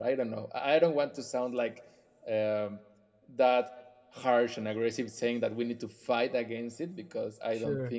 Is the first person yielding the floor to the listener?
No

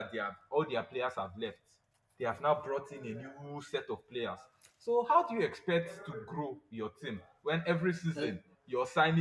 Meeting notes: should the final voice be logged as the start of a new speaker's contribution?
No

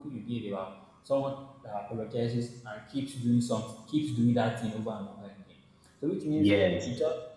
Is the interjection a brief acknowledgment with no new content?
Yes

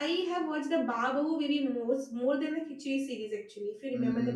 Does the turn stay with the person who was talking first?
No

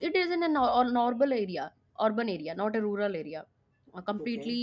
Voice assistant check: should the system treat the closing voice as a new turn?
No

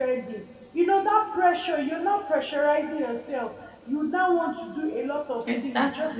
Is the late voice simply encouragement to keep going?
Yes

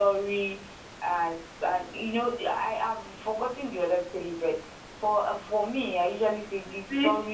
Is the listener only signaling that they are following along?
No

